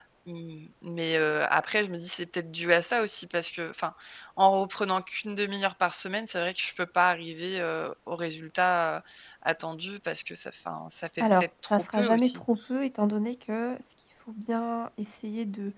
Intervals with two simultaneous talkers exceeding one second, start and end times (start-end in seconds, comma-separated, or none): 11.2-12.4